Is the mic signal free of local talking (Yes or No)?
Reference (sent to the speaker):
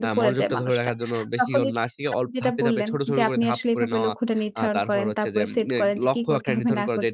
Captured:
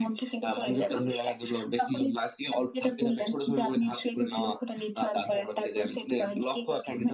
Yes